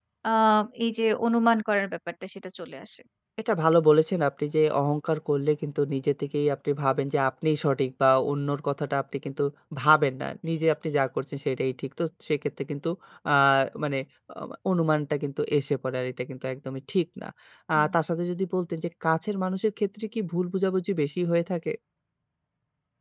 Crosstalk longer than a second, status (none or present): none